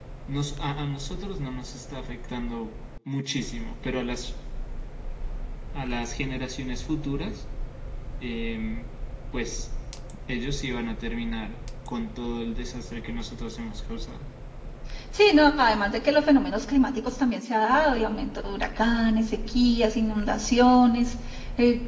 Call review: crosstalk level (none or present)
none